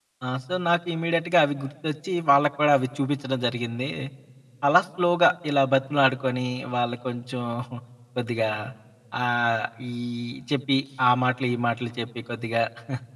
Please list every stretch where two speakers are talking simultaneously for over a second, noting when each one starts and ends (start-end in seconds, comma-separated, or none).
none